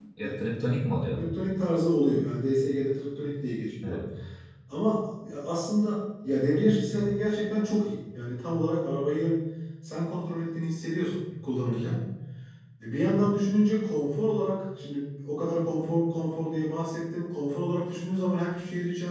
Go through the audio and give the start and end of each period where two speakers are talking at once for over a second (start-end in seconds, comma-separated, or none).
none